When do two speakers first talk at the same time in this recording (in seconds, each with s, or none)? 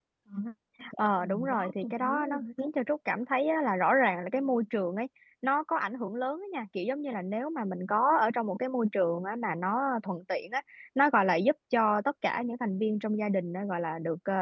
1.0 s